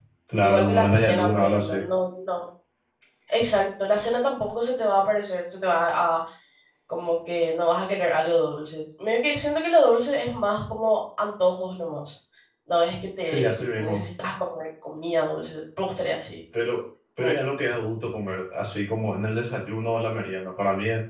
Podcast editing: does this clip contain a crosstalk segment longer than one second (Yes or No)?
Yes